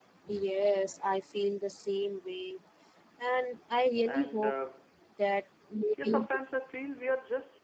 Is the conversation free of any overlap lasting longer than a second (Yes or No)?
Yes